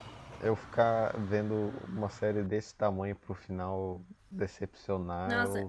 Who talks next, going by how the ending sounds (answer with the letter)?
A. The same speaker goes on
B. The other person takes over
B